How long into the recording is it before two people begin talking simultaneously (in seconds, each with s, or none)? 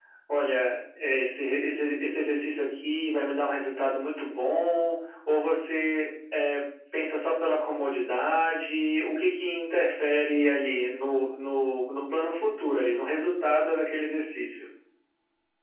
none